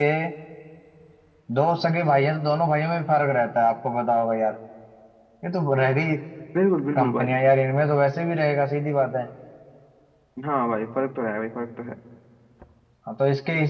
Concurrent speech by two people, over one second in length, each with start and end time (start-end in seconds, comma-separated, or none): none